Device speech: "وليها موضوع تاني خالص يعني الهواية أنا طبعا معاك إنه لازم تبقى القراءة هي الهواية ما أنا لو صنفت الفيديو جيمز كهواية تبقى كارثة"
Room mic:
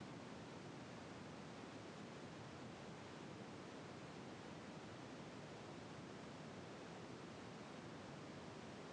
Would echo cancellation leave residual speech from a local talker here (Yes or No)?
No